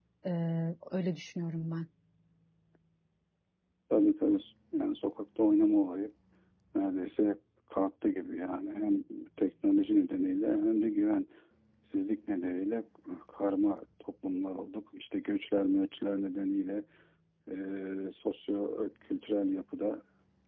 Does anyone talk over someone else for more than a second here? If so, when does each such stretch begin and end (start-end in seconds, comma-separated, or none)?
none